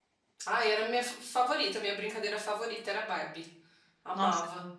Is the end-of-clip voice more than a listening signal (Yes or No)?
Yes